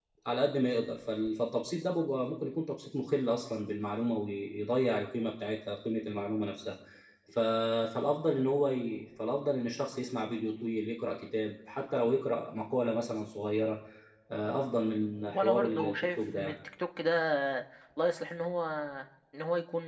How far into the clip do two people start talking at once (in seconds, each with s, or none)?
15.3 s